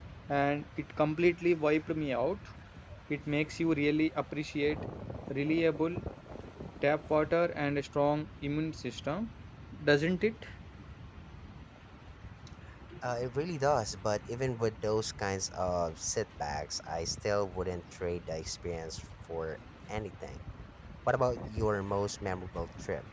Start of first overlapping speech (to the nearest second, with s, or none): none